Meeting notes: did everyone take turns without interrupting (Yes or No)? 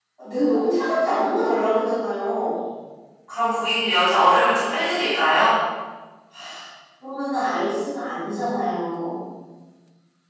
Yes